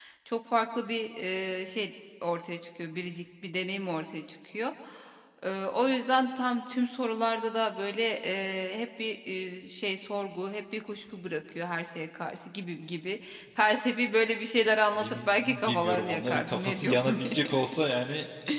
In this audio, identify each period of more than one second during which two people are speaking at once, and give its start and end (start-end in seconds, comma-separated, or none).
15.0-17.4